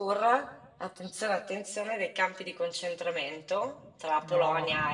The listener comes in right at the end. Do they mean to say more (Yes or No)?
No